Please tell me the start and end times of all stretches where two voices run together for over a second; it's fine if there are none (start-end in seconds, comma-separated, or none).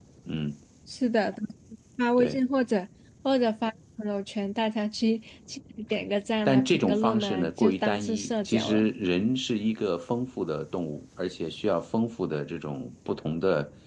6.4-8.9